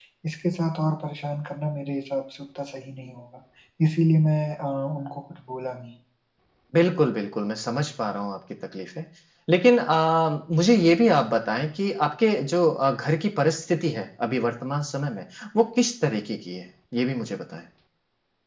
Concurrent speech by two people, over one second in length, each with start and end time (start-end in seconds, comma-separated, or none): none